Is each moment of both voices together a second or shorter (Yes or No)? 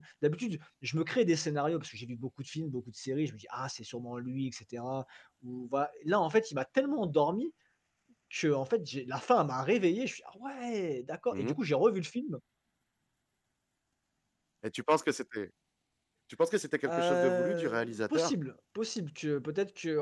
No